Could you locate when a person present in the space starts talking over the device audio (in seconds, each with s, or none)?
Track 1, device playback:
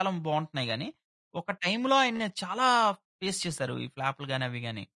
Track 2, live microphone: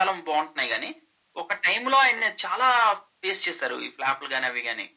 none